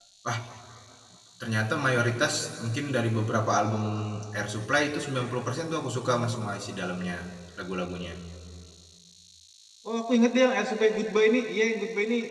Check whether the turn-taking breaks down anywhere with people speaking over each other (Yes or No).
No